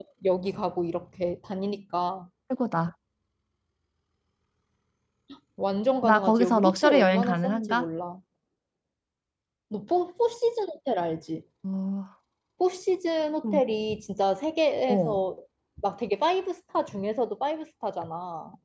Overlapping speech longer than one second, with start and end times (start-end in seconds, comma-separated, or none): 6.0-7.8